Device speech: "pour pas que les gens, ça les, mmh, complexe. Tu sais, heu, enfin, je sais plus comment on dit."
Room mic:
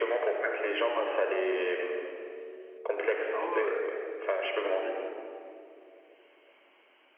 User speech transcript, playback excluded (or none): Ah ouais, ouais, ouais, mais clairement.